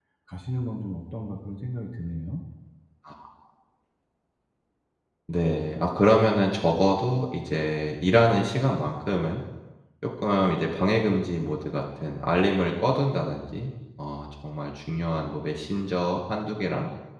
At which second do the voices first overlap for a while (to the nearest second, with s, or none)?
none